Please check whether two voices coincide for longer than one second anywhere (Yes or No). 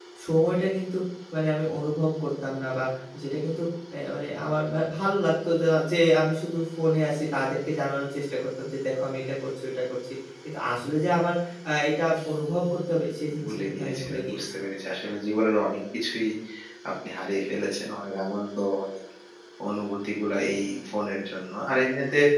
Yes